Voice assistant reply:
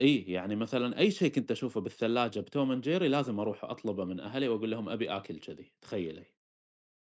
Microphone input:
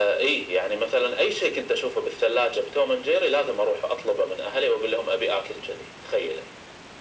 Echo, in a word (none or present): present